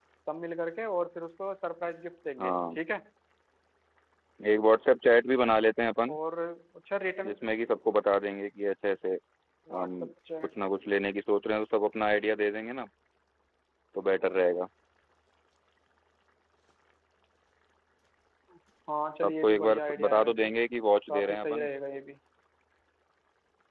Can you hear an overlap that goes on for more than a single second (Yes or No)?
Yes